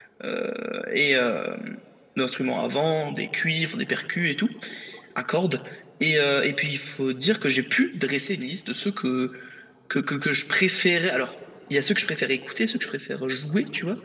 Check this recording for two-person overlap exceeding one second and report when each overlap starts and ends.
none

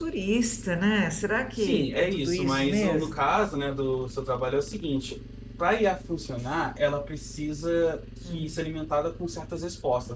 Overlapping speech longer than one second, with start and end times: 1.6-3.2

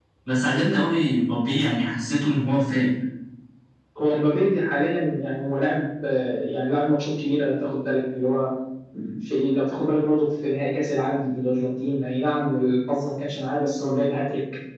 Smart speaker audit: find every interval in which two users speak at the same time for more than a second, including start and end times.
none

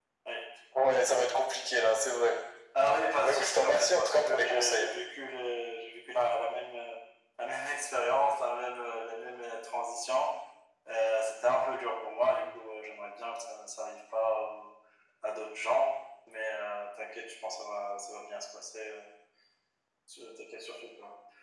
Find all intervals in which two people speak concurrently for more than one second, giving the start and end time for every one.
3.2-4.9

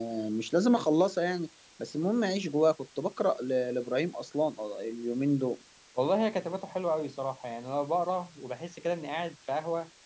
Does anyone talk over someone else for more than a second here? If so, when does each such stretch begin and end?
none

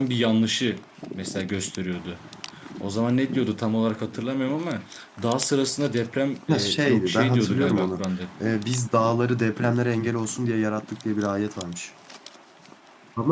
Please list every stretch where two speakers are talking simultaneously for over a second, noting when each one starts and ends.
6.5-8.0

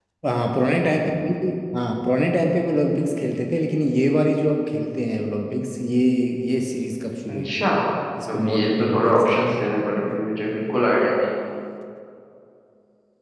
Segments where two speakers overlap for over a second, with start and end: 8.3-9.6

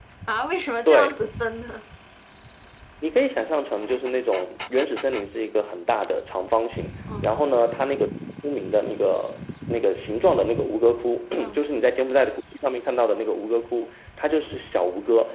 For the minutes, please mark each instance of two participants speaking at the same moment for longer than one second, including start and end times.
none

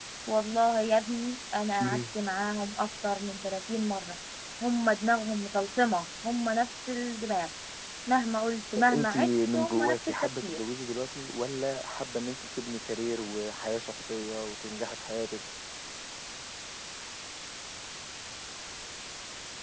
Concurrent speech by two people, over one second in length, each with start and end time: 8.9-10.6

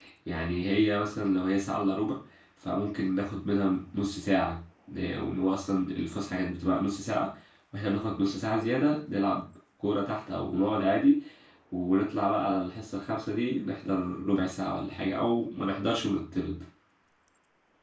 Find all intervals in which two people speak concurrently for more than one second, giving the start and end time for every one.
none

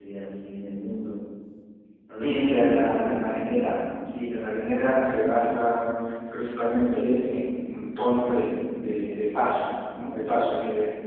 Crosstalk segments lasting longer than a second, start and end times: 2.2-3.6

